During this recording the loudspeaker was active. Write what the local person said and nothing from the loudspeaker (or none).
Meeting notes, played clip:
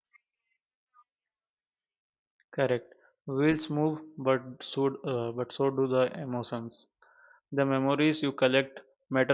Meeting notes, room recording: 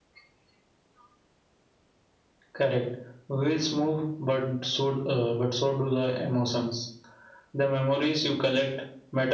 none